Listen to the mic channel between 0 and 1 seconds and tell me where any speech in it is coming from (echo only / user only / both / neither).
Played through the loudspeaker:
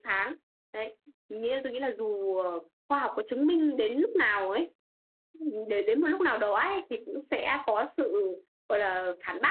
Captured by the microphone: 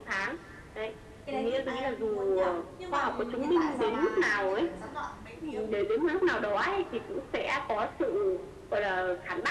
echo only